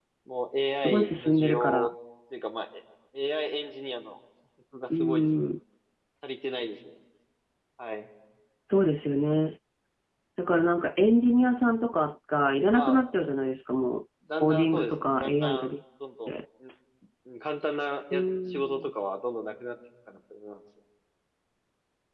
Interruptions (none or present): present